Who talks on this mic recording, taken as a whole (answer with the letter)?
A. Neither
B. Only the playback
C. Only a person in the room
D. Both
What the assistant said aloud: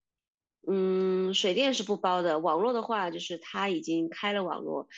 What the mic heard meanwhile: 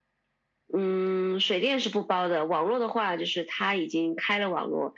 B